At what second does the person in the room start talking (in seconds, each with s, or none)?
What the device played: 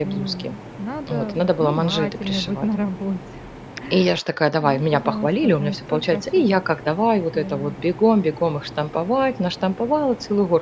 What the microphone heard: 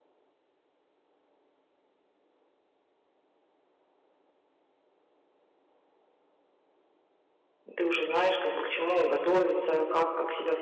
7.7 s